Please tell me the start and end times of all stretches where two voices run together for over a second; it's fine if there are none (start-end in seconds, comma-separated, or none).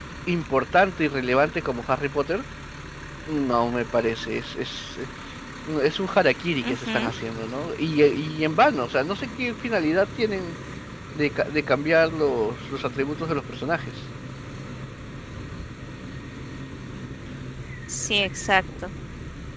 none